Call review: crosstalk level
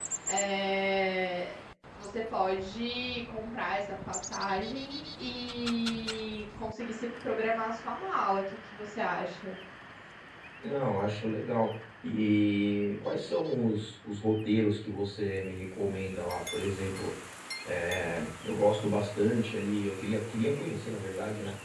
none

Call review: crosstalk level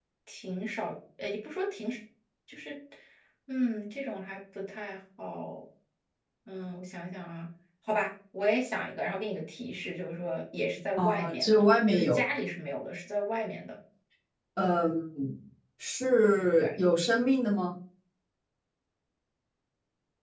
present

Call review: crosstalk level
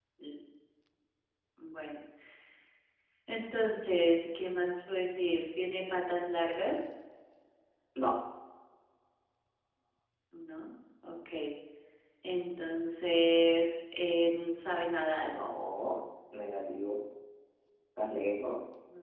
none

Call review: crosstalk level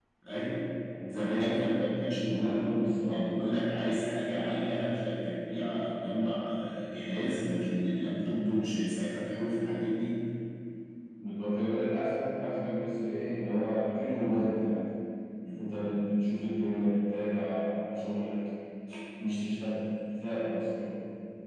present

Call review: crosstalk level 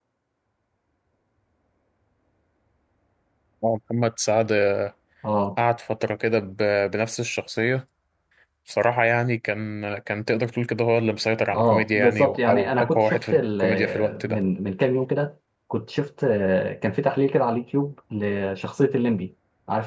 present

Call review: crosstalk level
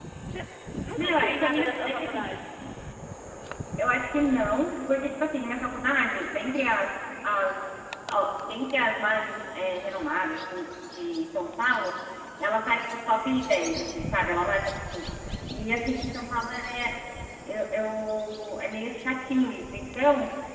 present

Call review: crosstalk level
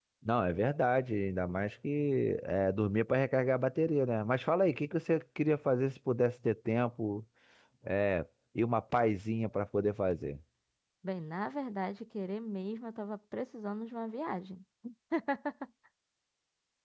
none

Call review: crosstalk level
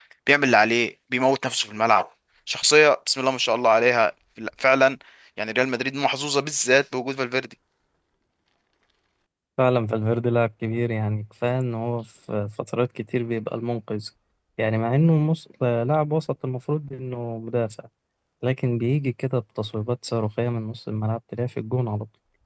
none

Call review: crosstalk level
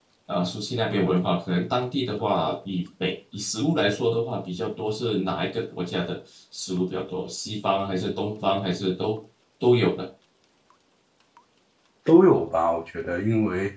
none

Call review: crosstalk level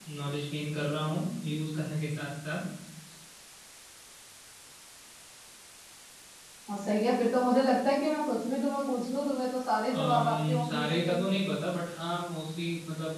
present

